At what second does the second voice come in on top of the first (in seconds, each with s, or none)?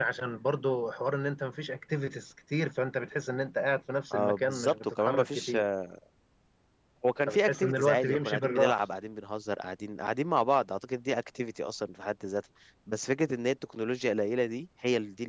4.1 s